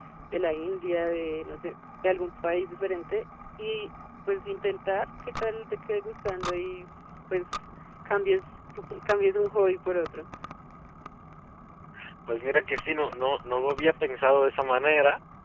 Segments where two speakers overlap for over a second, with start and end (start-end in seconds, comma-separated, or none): none